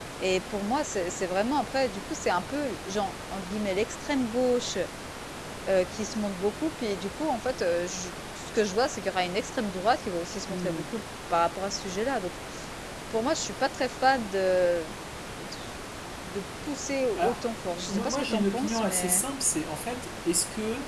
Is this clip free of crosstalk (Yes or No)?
No